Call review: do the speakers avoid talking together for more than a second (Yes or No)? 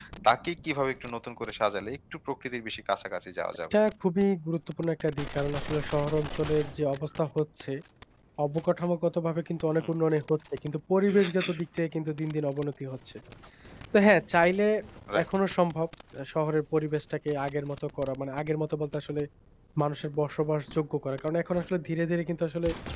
Yes